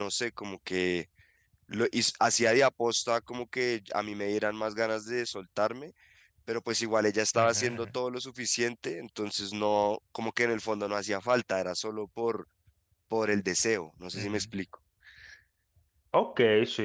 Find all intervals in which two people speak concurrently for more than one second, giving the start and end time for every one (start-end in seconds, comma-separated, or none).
none